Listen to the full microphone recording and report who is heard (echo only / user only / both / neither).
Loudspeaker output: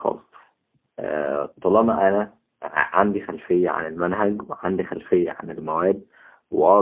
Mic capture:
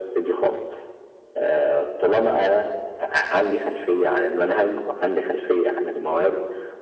echo only